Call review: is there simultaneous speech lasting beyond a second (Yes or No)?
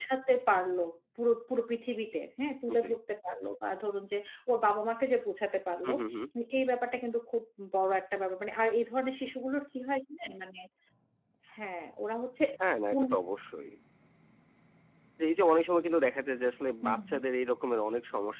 No